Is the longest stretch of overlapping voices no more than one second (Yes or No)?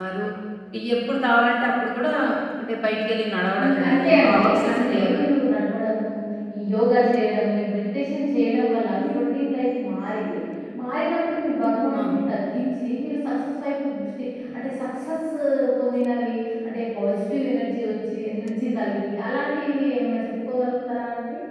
No